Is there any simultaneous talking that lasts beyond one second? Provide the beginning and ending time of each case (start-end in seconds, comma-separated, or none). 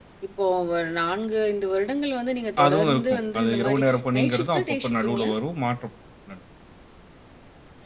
2.6-5.3